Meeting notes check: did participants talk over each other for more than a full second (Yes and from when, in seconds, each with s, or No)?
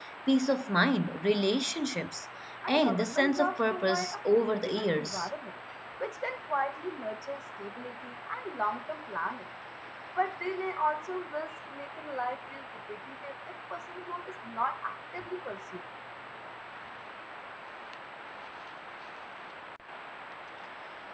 Yes, from 2.6 s